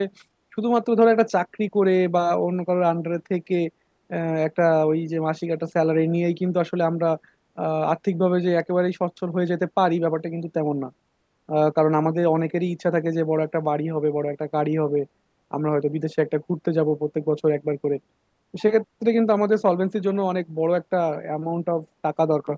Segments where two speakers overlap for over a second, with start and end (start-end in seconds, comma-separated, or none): none